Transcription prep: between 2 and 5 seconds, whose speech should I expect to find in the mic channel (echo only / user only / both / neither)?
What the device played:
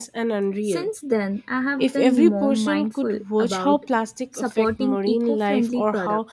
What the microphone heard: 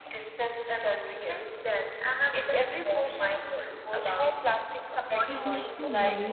echo only